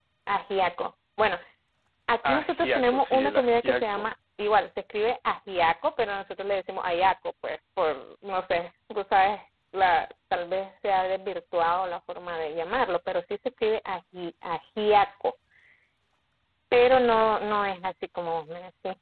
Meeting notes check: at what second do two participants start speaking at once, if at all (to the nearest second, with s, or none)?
2 s